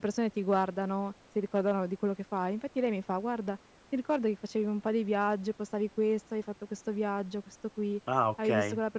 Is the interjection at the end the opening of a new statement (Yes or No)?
No